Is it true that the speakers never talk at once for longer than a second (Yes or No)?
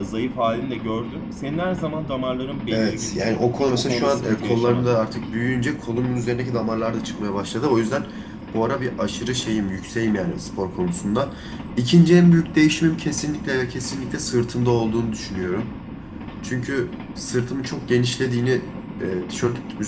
No